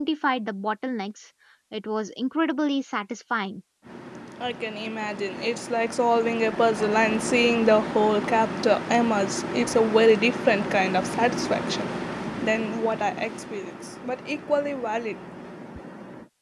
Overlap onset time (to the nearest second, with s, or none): none